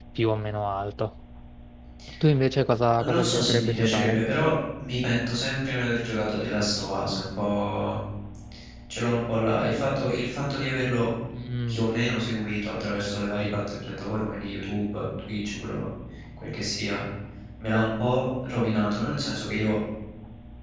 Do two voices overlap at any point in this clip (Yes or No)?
Yes